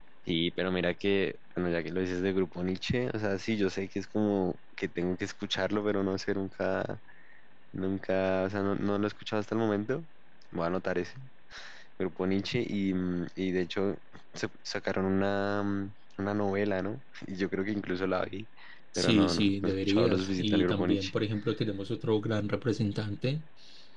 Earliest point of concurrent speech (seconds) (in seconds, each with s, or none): 19.0 s